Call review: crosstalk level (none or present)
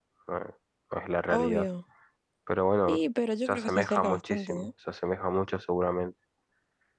present